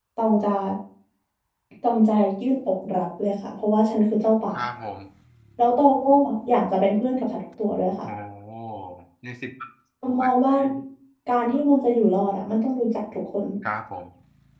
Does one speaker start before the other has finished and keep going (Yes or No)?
No